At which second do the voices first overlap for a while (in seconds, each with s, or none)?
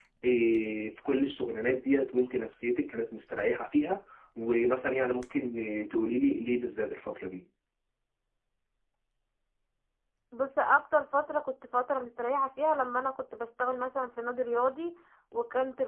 none